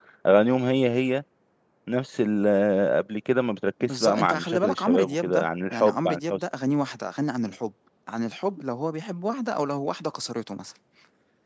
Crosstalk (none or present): present